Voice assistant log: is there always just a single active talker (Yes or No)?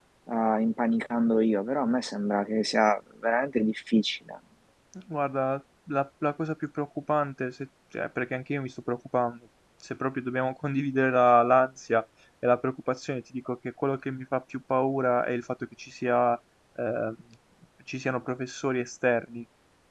Yes